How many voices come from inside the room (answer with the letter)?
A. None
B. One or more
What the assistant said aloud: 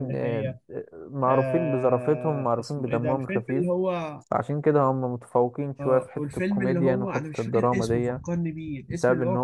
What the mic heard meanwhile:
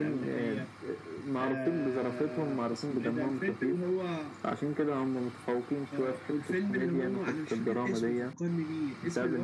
A